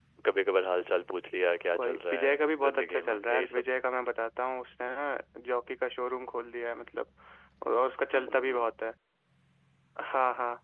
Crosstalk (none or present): present